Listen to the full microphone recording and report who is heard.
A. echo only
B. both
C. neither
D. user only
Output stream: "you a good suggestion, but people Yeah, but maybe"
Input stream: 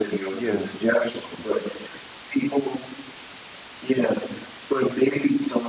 B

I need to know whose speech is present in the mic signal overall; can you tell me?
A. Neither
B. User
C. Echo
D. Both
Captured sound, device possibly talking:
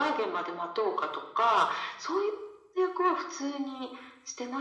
C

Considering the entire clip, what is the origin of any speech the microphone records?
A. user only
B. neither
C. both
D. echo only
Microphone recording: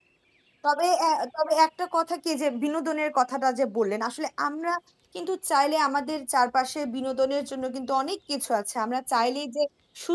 A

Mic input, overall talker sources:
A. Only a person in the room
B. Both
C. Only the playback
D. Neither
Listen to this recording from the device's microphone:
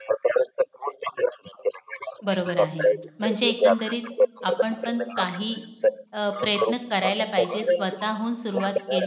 B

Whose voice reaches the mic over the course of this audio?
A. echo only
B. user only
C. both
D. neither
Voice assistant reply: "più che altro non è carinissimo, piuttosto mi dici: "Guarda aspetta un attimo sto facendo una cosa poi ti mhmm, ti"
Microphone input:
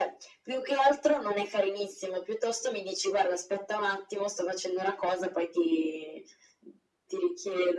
A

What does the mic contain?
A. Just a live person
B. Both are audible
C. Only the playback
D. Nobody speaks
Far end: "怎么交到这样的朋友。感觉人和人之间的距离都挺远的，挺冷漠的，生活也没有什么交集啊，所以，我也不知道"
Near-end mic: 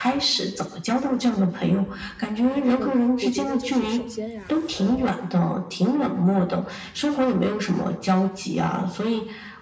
B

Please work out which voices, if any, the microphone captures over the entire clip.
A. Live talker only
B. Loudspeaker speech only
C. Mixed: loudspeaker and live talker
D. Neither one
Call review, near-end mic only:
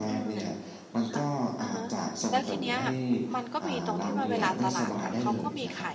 C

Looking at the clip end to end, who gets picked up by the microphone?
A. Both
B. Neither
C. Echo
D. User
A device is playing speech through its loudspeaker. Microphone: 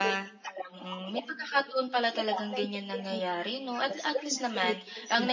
A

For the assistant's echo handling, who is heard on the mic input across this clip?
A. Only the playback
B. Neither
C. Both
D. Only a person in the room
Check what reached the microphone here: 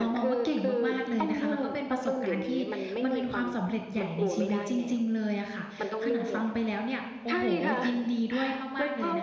C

